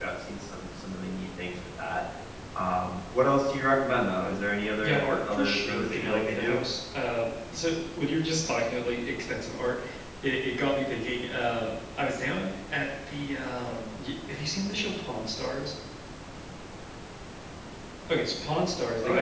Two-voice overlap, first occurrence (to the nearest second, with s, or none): 5 s